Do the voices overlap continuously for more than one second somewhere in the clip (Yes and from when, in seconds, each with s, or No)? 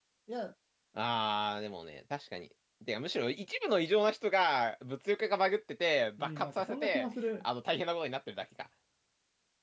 Yes, from 6.2 s